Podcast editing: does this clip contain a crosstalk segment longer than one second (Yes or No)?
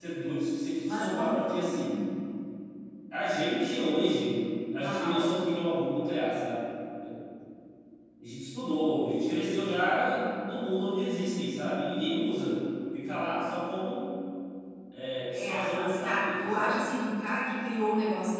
Yes